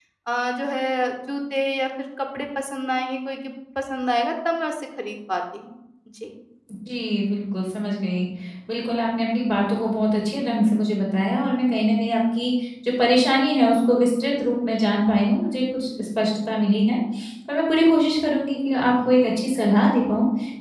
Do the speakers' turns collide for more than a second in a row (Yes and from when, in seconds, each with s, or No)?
No